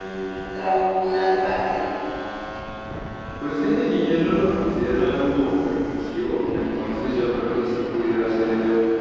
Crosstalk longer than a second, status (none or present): none